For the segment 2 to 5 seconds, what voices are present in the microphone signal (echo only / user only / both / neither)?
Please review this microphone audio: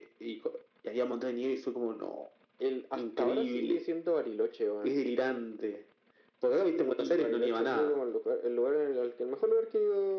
echo only